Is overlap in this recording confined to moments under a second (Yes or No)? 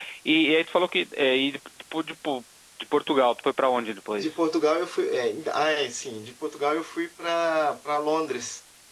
Yes